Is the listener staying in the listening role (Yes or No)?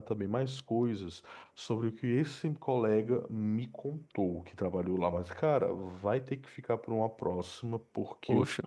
Yes